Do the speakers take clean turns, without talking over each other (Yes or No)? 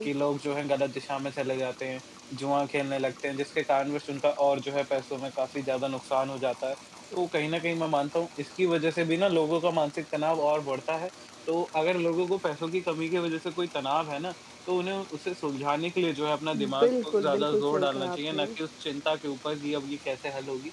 No